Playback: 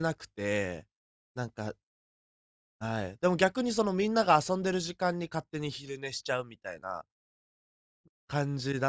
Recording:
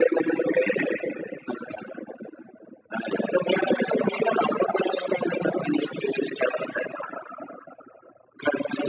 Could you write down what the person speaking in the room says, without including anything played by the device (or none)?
none